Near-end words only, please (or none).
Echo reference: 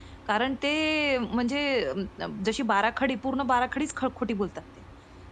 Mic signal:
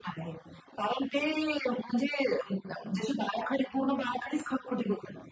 none